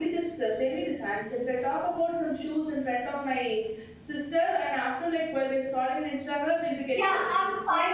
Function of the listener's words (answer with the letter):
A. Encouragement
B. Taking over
B